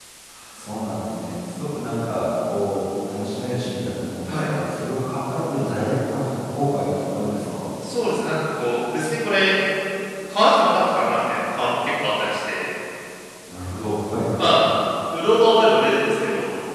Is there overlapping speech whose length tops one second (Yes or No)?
No